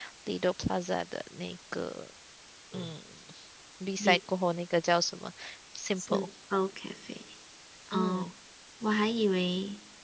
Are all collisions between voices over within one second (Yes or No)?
Yes